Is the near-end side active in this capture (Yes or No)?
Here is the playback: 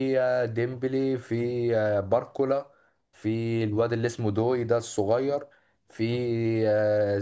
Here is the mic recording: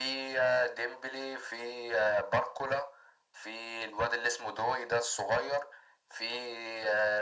No